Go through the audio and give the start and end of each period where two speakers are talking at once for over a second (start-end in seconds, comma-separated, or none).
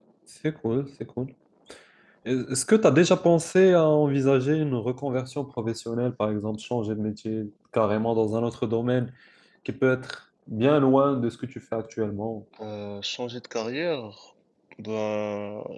none